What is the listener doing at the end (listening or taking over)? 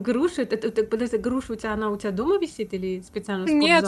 taking over